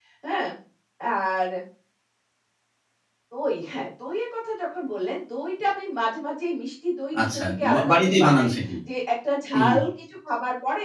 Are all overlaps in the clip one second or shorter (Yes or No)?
No